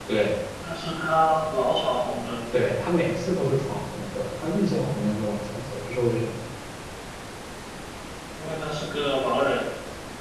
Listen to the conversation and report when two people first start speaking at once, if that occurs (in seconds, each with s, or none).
none